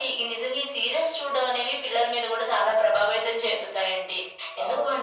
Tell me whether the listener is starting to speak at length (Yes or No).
No